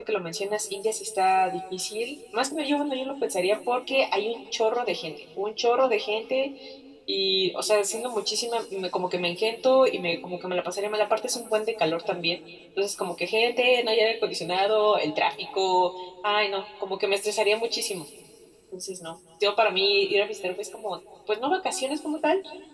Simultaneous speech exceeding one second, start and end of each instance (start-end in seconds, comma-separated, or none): none